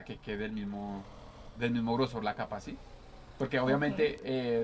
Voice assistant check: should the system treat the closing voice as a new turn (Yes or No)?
No